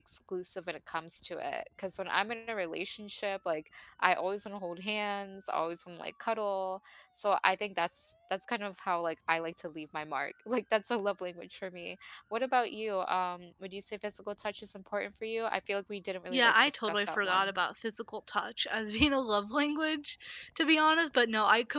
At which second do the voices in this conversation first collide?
16.3 s

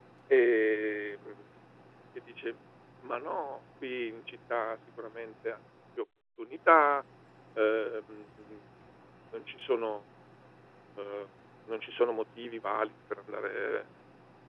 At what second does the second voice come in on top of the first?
none

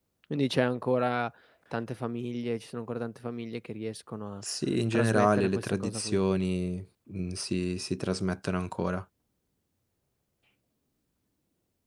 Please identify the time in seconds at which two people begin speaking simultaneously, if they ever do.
4.9 s

